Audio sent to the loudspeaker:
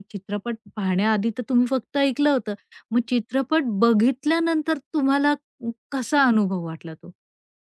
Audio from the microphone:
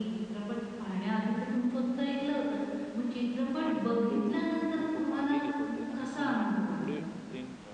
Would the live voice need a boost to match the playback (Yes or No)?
Yes